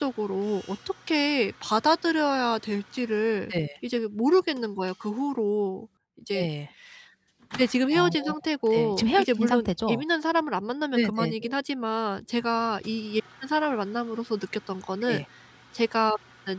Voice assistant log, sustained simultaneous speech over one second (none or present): present